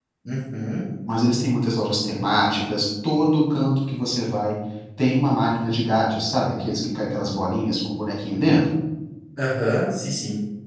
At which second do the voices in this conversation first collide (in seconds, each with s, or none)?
none